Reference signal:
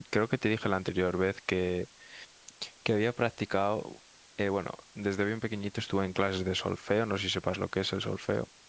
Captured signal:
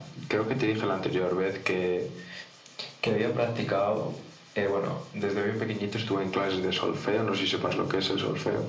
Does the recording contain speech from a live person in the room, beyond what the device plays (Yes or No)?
No